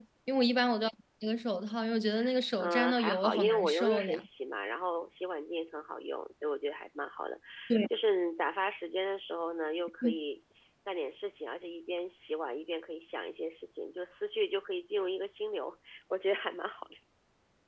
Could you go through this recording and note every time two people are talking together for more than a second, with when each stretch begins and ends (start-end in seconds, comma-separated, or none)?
2.6-4.2